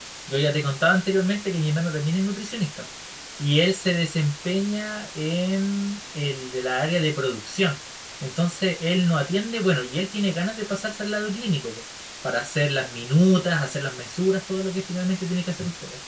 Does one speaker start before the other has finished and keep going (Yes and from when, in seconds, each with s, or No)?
No